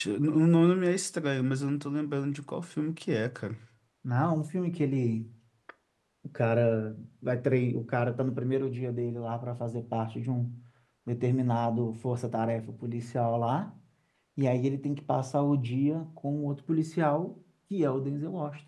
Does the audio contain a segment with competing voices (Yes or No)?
No